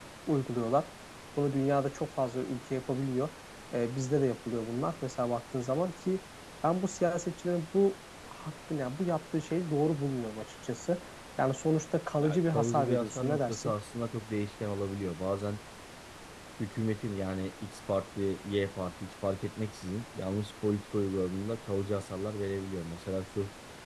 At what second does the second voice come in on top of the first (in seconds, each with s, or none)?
12.2 s